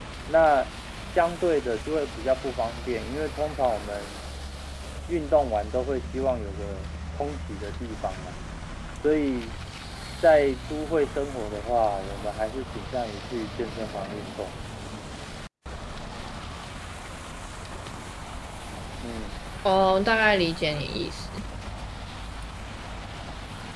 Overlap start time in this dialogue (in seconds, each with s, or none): none